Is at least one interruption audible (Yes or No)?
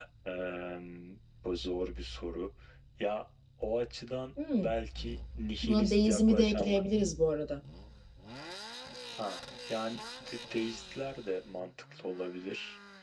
Yes